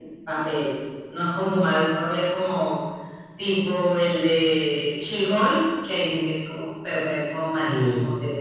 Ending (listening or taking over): listening